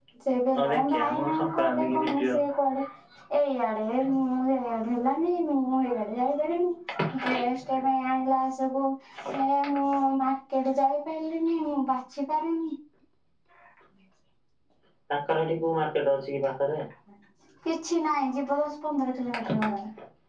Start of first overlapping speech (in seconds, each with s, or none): 0.6 s